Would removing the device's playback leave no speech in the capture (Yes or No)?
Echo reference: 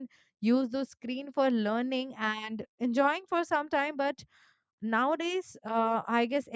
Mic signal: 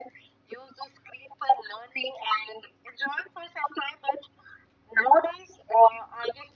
Yes